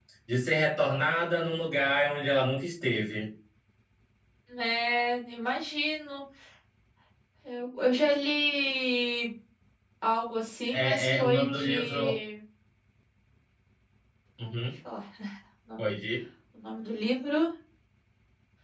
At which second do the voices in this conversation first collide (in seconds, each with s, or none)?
10.8 s